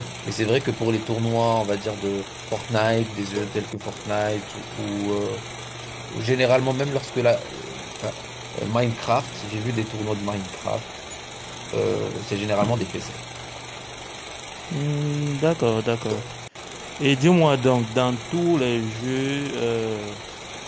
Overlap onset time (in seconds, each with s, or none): none